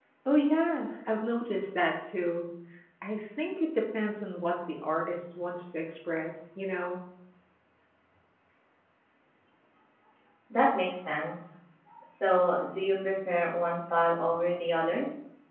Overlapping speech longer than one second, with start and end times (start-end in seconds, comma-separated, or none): none